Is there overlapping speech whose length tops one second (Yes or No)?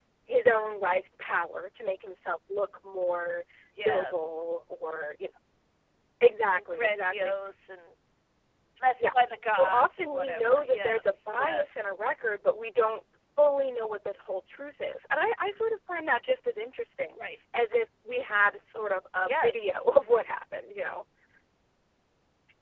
Yes